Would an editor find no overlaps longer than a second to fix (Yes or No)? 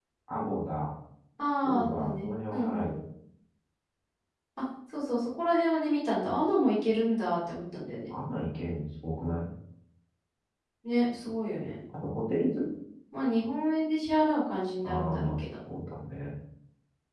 No